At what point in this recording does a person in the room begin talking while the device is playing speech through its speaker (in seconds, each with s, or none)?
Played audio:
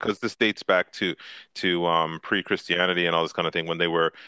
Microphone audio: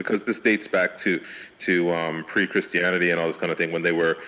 none